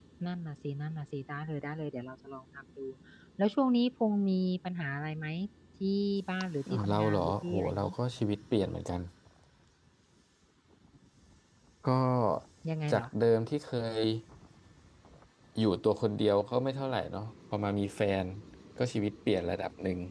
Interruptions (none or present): present